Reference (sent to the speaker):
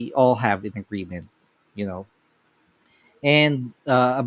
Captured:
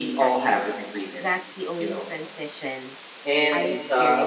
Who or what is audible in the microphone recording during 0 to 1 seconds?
both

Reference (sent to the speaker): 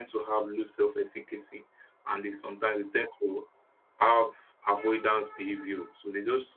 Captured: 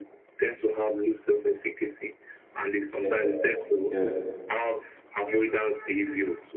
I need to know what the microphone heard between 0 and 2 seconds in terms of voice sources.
echo only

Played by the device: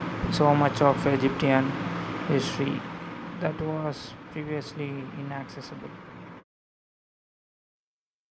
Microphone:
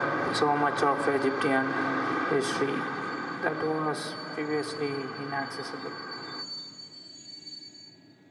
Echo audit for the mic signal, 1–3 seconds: echo only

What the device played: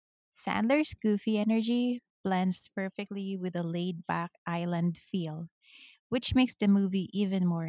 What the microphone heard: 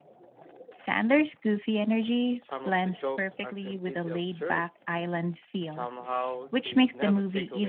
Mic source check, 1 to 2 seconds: echo only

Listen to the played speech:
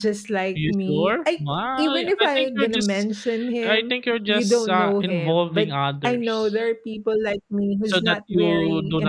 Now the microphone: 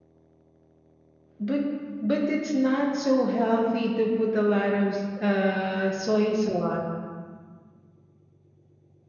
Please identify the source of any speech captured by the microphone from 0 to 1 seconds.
neither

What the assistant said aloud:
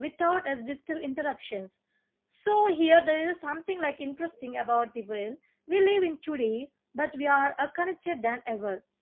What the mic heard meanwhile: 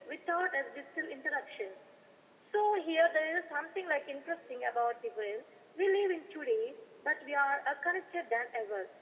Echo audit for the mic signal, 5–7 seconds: echo only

